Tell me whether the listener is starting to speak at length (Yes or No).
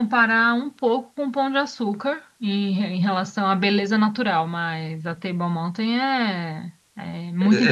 Yes